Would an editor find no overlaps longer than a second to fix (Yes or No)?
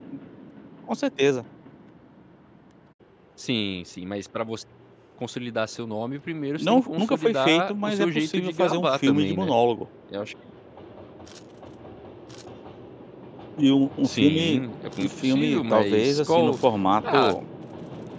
No